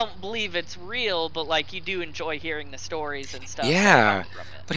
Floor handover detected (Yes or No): Yes